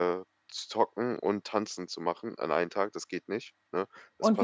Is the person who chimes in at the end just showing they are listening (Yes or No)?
No